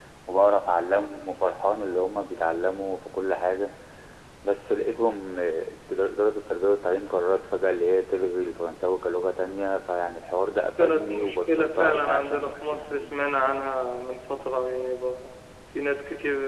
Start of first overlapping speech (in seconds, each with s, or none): 10.8 s